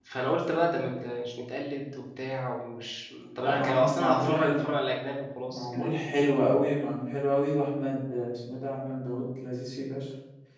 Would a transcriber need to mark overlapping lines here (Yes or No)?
Yes